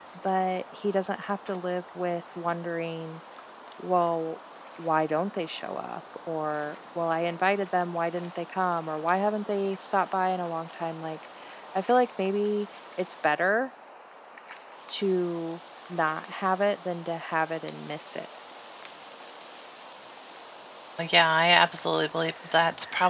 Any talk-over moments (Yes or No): No